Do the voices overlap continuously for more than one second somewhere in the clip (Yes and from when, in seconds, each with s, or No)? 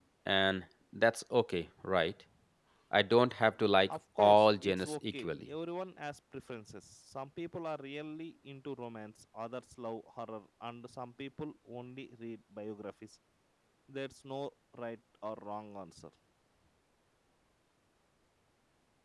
Yes, from 4.2 s